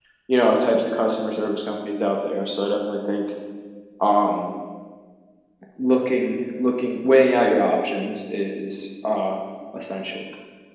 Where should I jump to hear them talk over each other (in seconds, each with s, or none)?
none